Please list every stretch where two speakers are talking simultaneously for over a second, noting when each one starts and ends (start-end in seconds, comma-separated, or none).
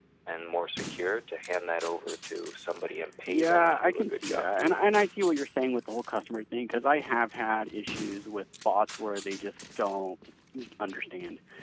3.3-4.8